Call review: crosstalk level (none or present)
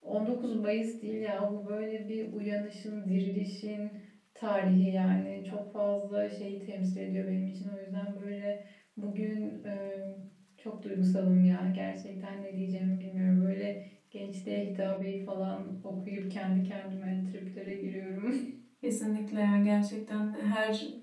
none